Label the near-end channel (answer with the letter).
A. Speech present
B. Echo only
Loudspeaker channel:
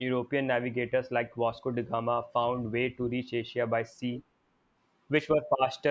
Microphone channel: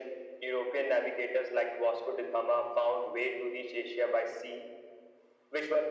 B